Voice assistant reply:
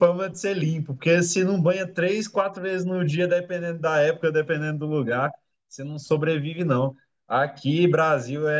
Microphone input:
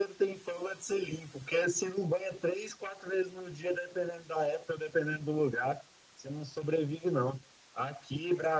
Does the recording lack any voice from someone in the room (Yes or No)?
Yes